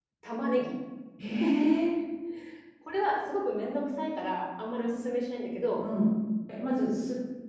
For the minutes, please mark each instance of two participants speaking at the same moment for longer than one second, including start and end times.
none

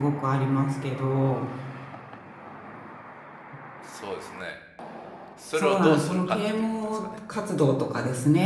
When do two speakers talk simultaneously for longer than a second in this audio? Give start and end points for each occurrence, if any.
5.5-7.2

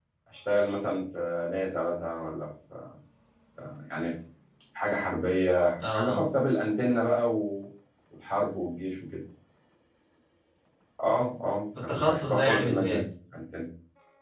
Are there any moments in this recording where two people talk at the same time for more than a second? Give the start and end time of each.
11.8-13.0

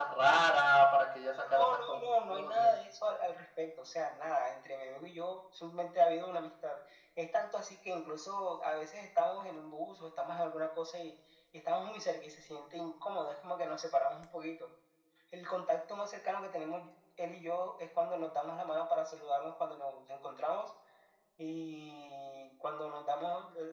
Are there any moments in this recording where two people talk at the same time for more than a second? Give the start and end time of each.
1.5-2.8

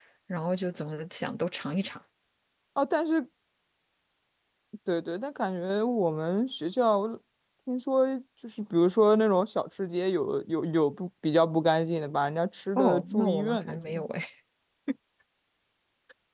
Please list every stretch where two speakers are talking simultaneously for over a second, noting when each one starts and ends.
12.8-14.0

